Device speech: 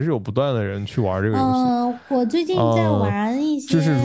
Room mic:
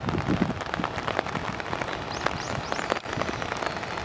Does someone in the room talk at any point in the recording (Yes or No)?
No